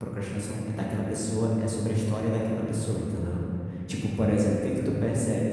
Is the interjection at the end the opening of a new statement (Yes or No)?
No